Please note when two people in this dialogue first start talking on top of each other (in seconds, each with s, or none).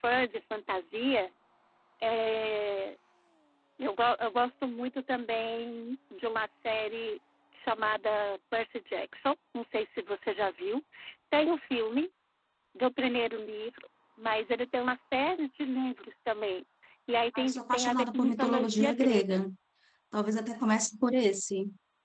17.3 s